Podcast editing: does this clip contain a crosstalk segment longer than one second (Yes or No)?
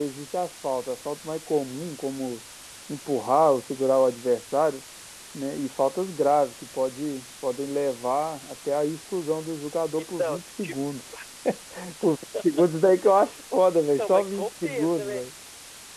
Yes